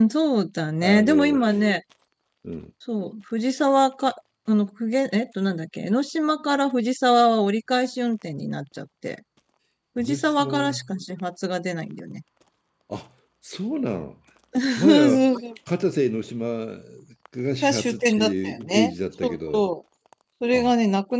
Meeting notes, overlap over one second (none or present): present